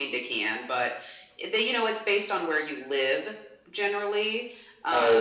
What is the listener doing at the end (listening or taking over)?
taking over